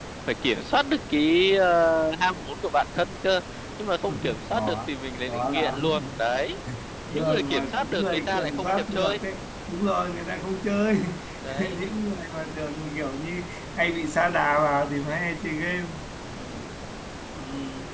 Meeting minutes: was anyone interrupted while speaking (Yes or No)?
Yes